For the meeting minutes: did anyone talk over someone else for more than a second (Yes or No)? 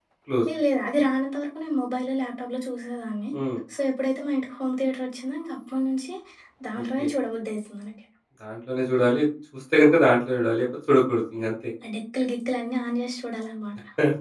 No